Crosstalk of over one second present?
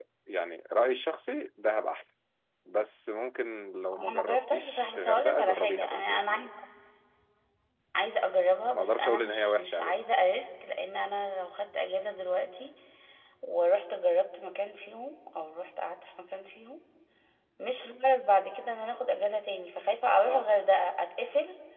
Yes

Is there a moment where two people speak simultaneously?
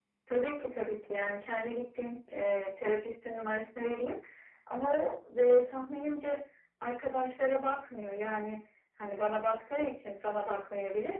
No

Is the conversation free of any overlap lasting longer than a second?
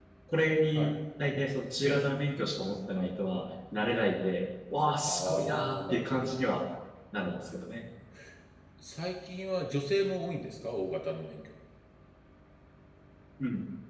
No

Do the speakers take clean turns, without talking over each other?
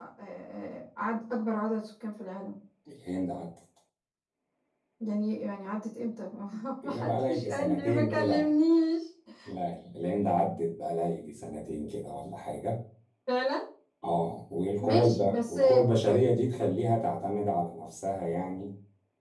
No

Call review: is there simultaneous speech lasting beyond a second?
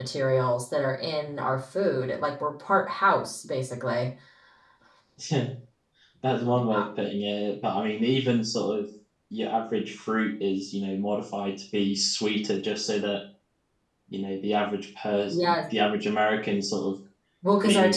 No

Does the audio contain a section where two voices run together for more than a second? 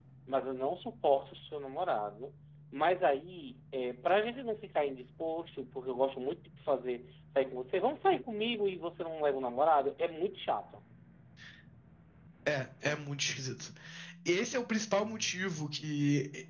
No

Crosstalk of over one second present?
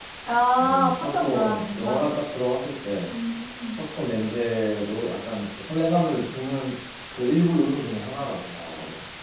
Yes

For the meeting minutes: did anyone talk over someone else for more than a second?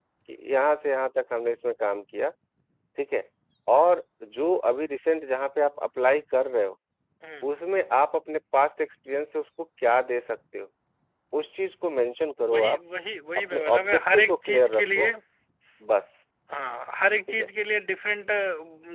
Yes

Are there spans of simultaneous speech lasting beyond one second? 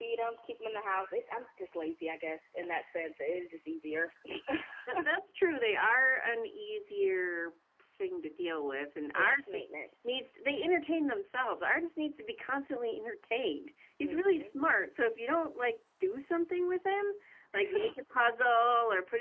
No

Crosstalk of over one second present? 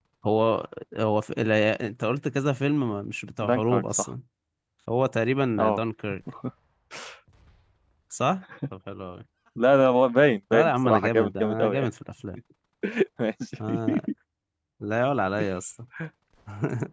Yes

